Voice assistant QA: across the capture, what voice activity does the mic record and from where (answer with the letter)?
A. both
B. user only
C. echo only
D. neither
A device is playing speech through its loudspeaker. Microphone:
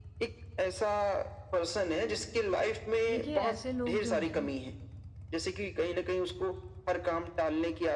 A